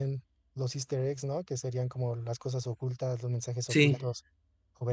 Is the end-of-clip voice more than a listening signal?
No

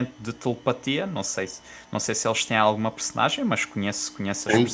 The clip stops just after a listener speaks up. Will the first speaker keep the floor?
No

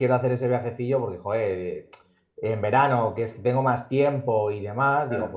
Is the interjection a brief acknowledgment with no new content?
Yes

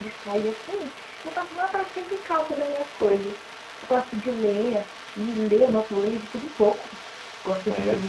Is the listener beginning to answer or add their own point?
No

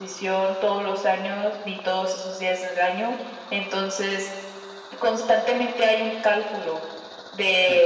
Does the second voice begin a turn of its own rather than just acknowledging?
No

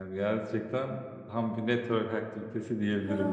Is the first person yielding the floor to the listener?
Yes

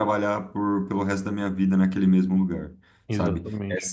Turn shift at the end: No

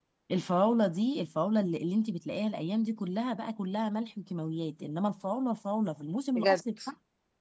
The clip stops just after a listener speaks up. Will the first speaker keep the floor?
Yes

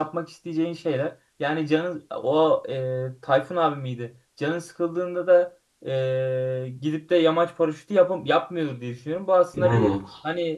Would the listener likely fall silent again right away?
Yes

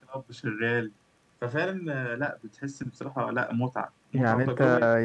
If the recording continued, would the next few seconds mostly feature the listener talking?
Yes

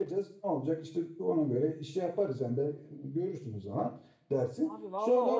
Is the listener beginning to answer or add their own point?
Yes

